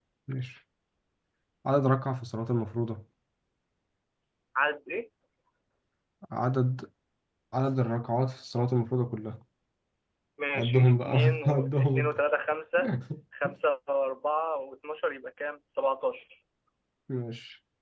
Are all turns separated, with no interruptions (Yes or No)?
No